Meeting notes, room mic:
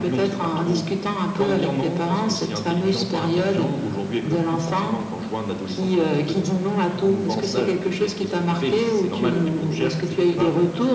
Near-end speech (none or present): none